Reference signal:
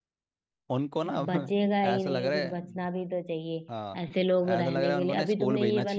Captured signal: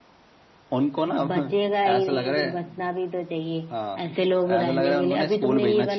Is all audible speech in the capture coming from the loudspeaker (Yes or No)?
Yes